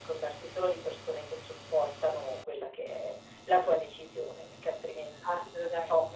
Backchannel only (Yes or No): No